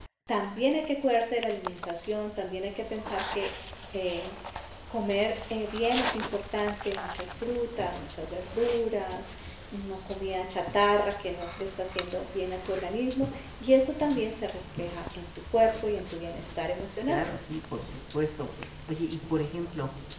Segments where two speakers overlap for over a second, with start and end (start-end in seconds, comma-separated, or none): none